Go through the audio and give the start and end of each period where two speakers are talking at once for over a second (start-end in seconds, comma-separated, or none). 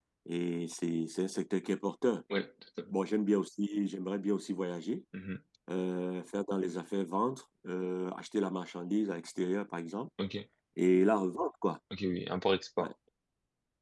none